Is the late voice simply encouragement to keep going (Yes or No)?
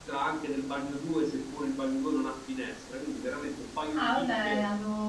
No